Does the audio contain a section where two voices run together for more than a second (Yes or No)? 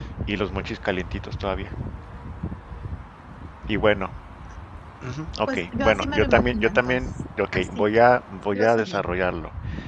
Yes